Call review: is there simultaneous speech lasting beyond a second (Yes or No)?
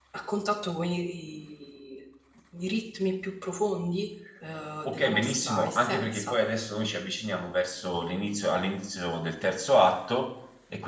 Yes